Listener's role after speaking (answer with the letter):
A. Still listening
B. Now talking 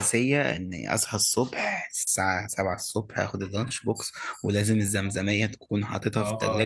B